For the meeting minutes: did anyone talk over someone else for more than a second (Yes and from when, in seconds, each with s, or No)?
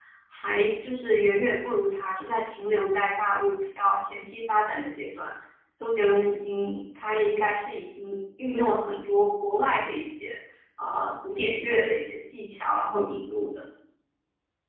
No